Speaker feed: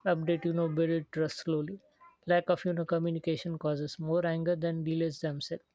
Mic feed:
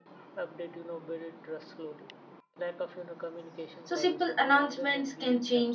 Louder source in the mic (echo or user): user